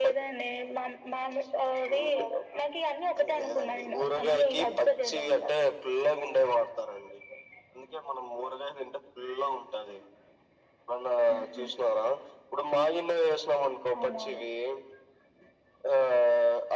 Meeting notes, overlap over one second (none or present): present